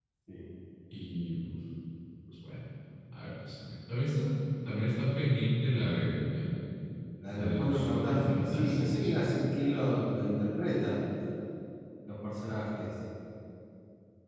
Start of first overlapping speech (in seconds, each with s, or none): 7.4 s